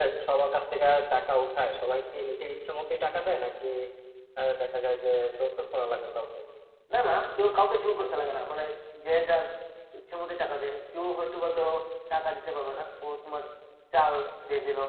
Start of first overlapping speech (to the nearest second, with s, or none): none